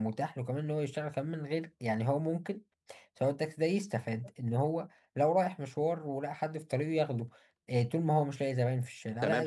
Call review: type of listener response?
taking over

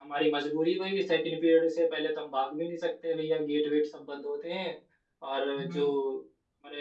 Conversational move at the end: listening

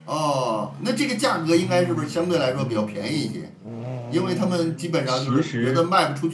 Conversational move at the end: listening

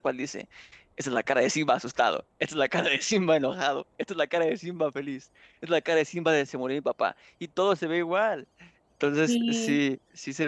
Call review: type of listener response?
listening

